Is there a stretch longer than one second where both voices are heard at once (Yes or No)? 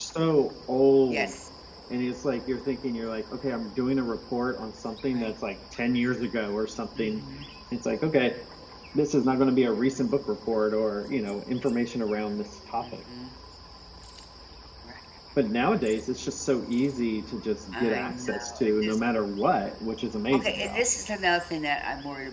Yes